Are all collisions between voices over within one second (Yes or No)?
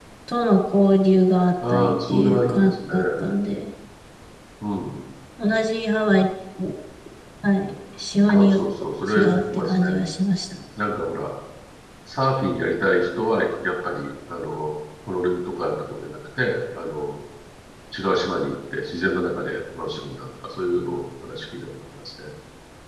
No